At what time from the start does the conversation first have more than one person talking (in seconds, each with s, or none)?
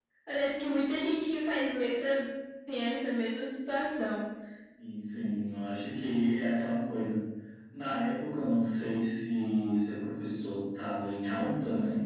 none